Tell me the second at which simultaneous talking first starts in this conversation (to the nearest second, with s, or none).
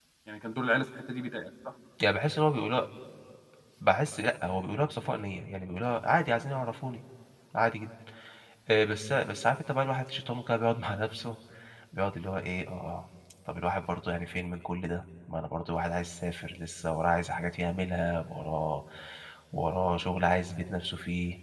none